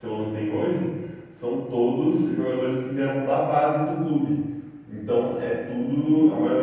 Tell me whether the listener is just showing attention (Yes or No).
Yes